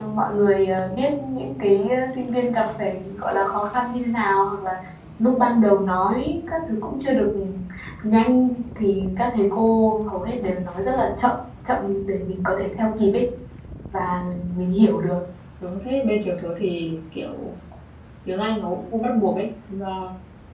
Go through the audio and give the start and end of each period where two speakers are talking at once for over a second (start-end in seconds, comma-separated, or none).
none